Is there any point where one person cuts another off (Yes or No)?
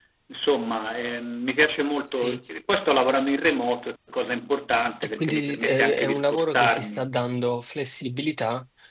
Yes